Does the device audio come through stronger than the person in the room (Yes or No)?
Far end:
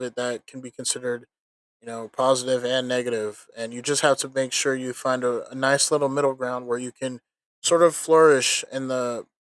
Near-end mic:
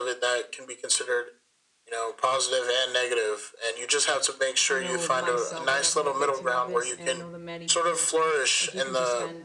Yes